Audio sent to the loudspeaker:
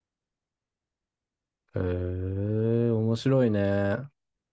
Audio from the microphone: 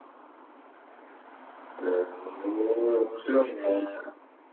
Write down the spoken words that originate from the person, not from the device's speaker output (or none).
none